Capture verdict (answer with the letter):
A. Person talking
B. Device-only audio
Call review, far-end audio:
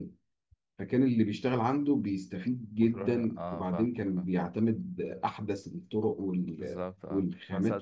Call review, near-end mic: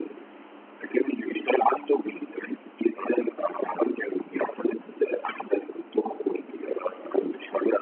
B